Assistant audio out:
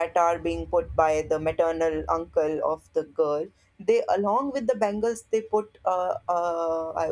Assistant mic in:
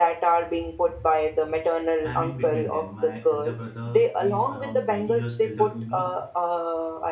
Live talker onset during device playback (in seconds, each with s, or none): 2.0 s